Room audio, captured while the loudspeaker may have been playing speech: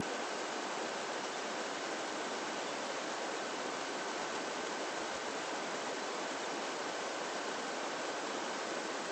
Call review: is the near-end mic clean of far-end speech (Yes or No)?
Yes